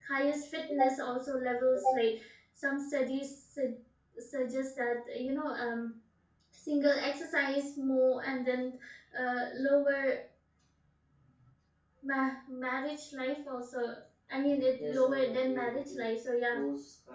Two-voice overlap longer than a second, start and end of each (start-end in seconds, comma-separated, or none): 14.8-16.1